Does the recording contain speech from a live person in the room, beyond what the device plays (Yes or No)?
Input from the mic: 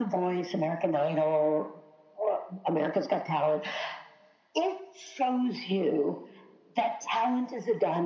No